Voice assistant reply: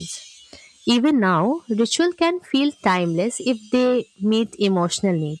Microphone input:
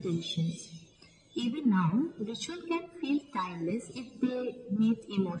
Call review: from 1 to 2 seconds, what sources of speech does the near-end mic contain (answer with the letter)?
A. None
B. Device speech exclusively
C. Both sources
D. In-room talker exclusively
B